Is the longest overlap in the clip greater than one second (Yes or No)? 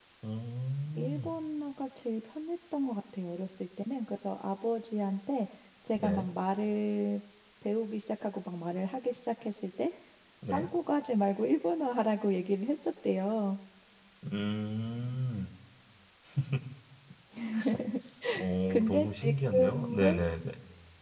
Yes